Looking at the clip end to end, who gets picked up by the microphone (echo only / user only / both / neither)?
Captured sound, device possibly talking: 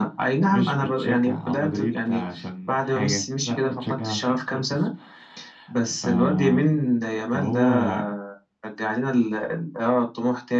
echo only